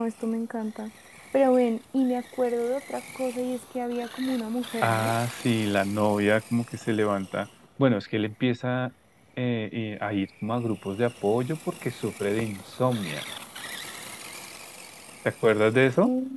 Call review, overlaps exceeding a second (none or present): none